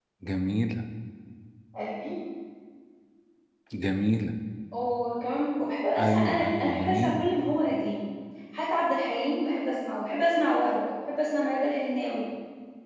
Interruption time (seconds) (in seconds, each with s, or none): 6.0 s